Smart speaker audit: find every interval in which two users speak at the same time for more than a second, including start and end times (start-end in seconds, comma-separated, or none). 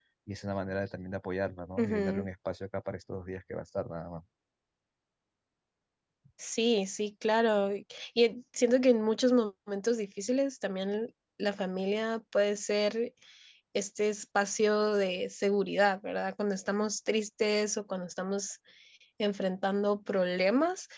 none